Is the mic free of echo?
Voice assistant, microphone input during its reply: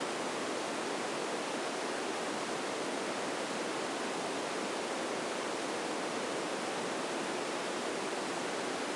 Yes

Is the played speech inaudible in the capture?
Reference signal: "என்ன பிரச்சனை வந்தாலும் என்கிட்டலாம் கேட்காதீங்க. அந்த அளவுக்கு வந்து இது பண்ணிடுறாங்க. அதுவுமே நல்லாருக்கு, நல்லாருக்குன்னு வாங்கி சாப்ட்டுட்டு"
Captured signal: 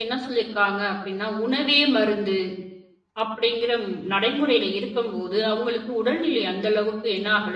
Yes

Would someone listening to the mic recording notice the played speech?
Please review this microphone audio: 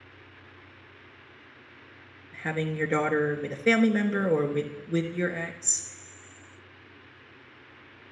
No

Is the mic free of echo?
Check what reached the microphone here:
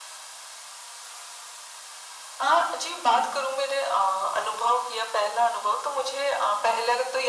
No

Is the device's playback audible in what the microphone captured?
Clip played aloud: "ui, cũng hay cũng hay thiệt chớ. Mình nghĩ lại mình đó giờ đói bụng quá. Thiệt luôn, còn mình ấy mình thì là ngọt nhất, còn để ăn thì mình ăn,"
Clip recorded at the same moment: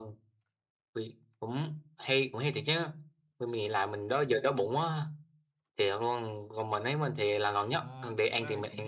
Yes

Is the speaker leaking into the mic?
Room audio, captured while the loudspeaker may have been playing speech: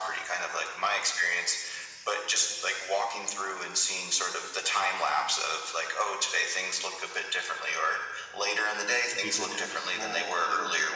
Yes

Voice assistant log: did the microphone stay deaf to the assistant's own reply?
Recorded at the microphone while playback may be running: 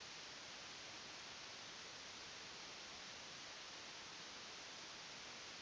Yes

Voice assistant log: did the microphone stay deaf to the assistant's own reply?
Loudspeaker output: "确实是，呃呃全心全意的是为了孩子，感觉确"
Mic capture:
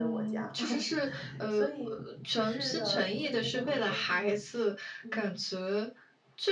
No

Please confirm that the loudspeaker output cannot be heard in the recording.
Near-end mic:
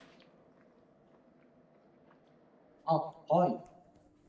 Yes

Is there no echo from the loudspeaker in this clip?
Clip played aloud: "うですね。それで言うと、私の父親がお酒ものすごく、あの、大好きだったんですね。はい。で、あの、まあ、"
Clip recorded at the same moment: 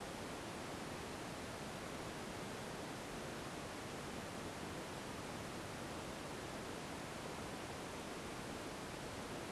Yes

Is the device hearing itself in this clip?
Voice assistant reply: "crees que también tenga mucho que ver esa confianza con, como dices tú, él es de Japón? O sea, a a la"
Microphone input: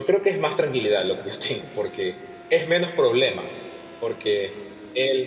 No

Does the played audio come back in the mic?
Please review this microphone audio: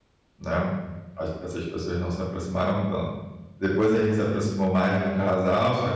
No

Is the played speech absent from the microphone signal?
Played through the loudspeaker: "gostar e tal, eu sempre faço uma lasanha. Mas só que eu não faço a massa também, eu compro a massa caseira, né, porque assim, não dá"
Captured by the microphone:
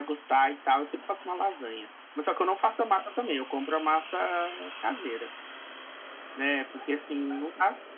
No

